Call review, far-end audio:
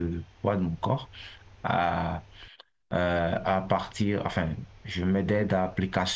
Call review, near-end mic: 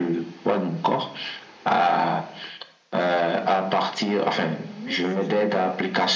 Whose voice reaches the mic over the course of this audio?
both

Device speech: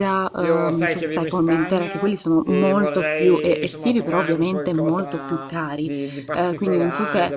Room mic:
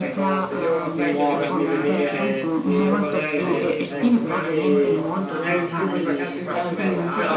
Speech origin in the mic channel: both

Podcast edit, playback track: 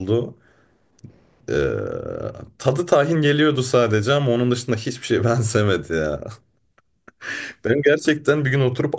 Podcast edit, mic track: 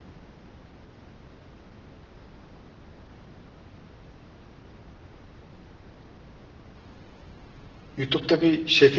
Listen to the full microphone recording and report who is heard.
user only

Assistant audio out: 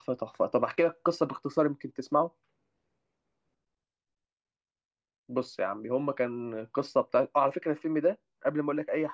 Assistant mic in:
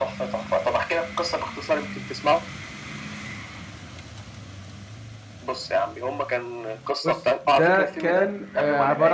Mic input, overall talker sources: both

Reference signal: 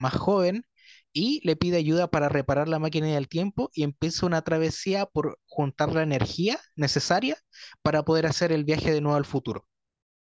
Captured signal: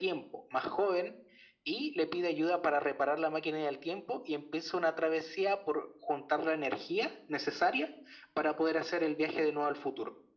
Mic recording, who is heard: echo only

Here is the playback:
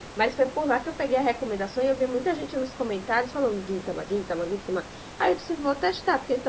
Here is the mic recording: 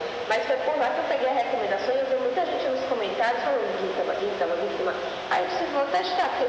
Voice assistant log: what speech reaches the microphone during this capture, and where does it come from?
echo only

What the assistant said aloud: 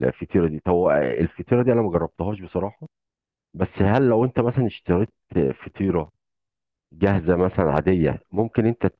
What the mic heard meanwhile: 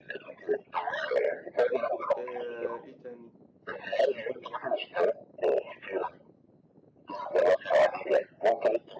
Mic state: both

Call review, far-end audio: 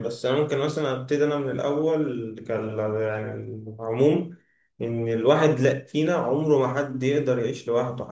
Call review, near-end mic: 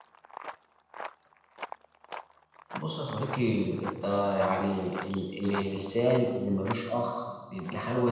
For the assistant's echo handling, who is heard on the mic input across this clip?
user only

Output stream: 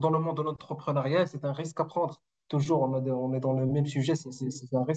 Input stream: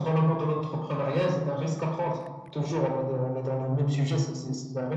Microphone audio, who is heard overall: echo only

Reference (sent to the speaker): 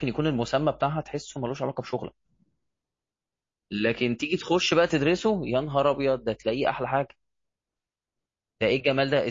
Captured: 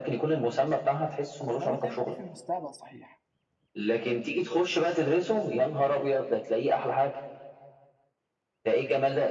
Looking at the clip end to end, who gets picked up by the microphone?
both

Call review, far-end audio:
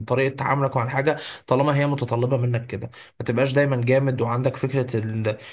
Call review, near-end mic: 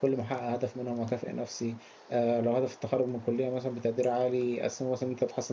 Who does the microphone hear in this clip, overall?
user only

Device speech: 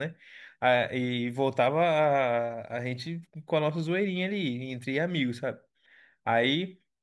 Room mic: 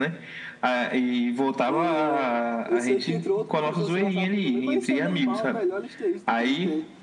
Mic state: both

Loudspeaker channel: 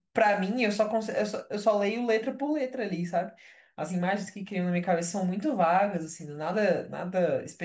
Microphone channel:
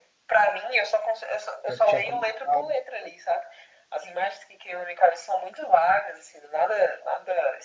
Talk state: both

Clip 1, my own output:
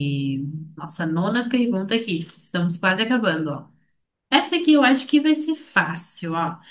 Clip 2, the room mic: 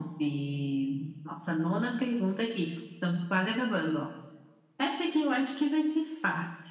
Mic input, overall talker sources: echo only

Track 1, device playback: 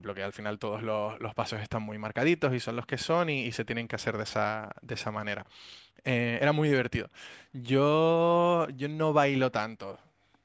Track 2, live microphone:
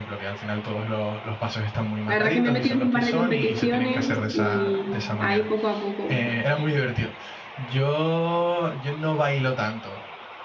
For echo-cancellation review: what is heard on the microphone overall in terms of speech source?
both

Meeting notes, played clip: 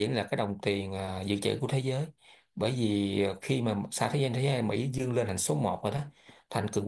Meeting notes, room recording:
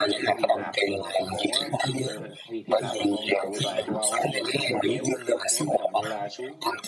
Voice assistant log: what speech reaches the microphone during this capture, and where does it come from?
both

